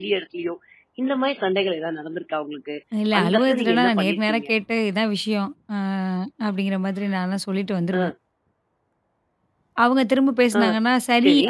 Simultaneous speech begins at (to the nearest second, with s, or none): 3 s